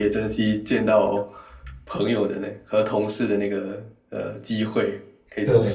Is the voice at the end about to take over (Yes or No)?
Yes